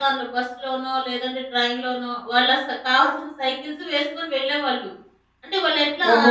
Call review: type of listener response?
taking over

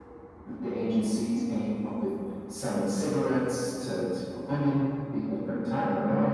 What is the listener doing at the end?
listening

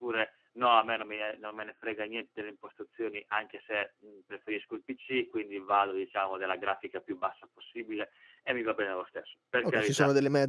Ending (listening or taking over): taking over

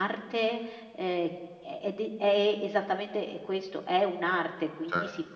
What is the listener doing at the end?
taking over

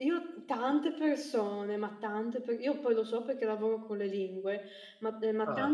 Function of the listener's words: listening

